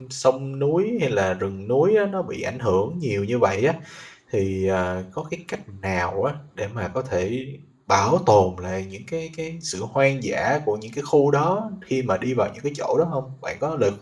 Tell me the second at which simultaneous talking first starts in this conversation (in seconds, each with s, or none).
none